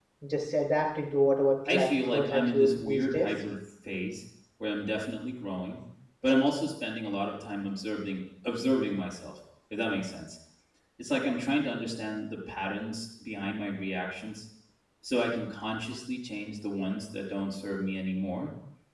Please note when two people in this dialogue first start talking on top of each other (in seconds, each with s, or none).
1.6 s